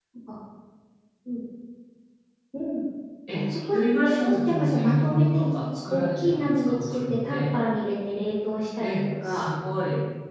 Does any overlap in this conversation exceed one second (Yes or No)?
Yes